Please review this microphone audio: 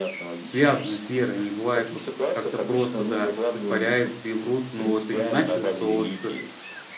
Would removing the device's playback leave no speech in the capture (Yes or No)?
No